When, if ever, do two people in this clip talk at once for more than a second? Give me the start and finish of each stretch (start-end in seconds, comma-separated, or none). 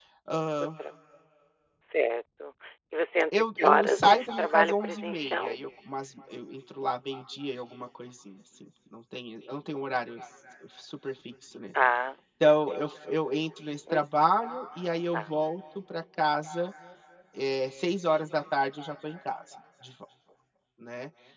3.3-5.6